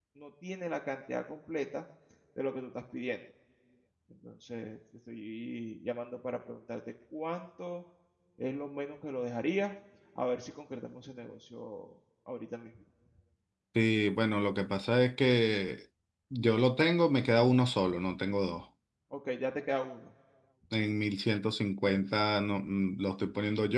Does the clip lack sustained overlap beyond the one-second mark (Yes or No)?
Yes